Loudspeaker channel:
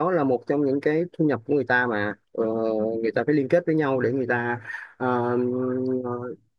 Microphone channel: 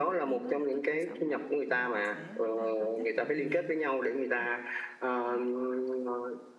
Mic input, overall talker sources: both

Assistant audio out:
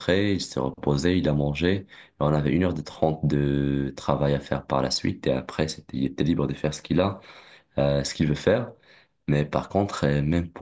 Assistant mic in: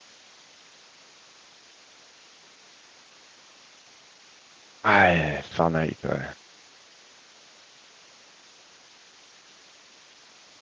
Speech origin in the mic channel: user only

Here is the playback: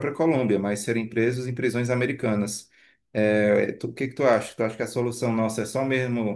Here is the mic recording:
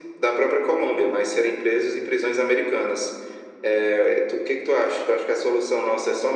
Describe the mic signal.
echo only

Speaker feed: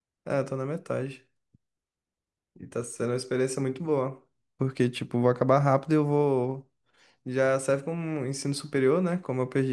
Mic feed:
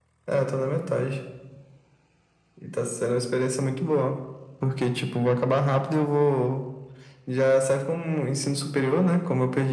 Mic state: echo only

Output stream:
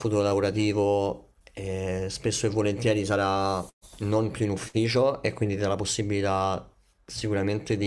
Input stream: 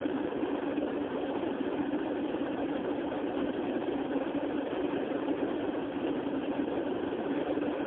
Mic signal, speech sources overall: neither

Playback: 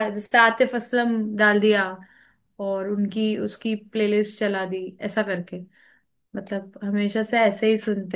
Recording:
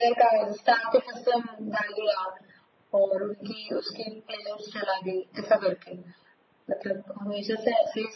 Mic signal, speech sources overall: echo only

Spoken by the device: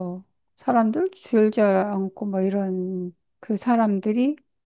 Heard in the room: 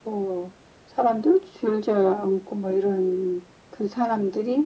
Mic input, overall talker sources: echo only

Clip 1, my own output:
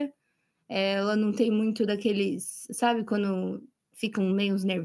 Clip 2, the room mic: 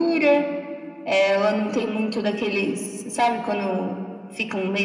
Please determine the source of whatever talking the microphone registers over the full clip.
echo only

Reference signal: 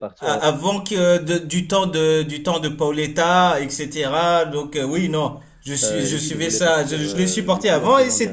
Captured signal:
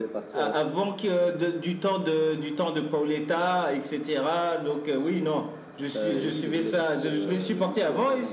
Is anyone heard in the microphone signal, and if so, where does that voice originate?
echo only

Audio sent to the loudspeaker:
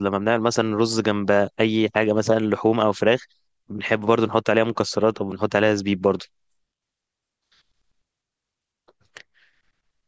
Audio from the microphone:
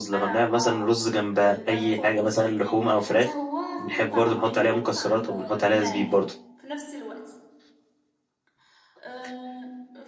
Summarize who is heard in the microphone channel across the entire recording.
both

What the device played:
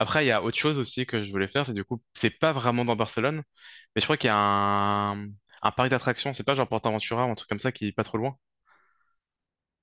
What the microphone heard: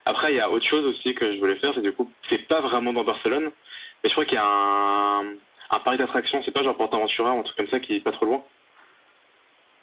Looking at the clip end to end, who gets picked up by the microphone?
echo only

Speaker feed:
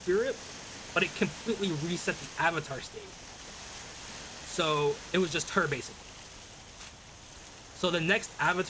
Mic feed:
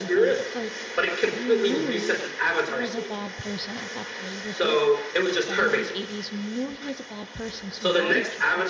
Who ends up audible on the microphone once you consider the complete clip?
both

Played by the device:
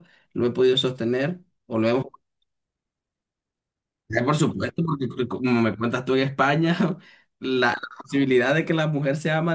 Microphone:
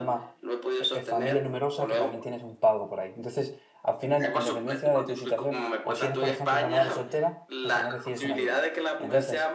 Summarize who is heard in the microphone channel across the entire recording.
both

